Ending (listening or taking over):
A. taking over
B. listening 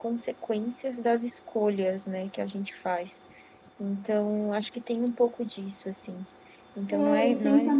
A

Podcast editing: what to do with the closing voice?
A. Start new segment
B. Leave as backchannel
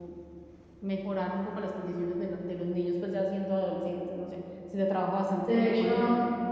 A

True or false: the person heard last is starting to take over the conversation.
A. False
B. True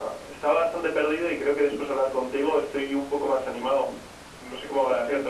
B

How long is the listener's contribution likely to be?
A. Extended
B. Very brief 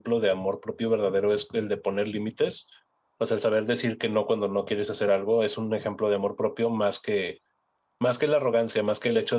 B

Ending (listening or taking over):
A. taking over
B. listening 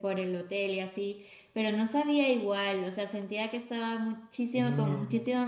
B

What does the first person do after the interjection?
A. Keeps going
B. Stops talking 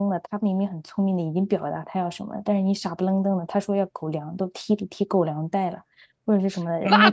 B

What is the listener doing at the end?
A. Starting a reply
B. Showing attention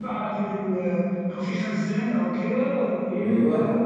B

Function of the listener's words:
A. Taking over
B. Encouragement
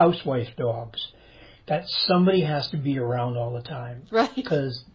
B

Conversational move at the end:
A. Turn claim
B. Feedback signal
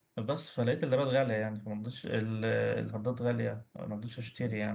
B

